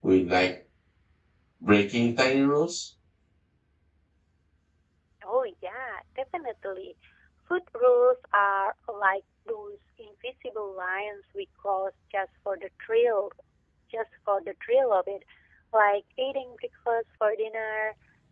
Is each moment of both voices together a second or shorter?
Yes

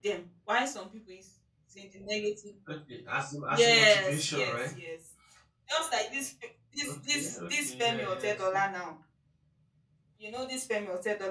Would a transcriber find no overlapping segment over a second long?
No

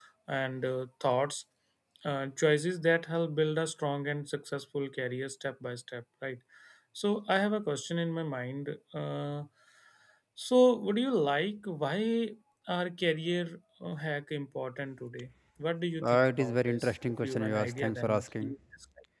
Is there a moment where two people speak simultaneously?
Yes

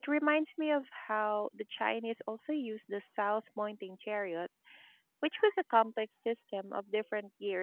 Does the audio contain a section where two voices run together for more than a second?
No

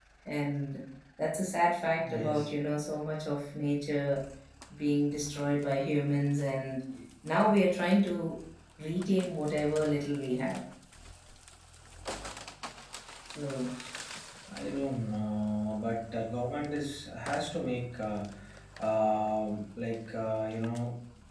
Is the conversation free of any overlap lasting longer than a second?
Yes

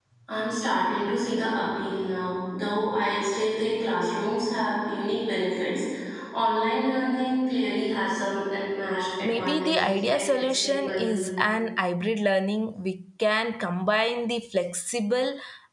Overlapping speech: Yes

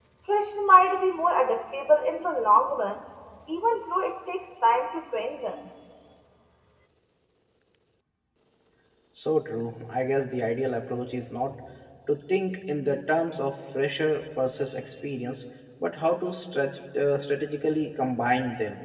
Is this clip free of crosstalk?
Yes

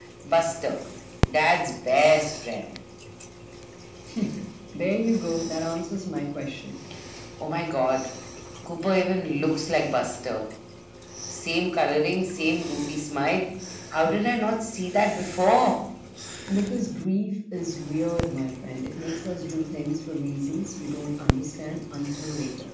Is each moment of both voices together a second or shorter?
Yes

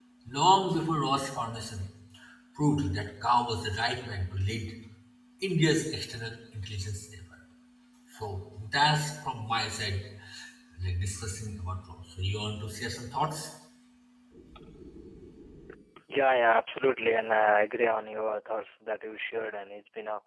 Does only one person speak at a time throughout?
Yes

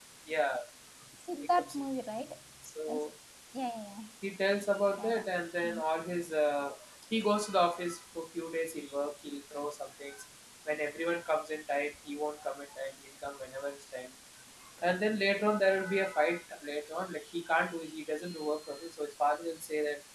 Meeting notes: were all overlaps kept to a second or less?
Yes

